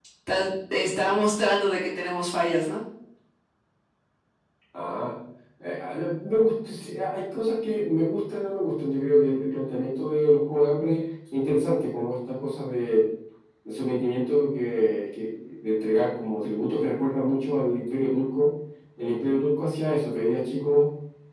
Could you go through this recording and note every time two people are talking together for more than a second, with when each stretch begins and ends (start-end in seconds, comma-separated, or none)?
none